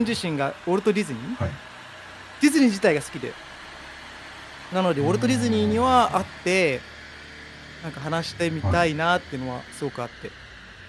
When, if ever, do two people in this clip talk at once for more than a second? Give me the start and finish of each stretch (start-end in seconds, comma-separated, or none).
5.0-6.2